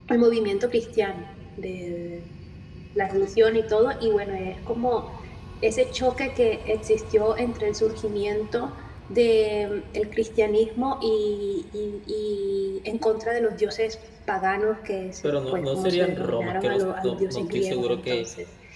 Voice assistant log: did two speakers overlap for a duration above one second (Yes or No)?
Yes